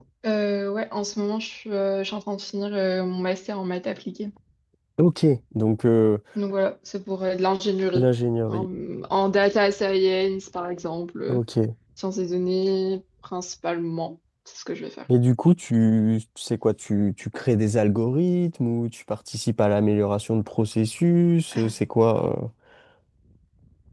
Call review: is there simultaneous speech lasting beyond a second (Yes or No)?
No